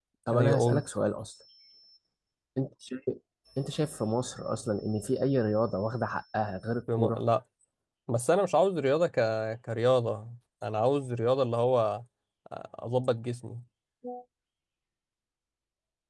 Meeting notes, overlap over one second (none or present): none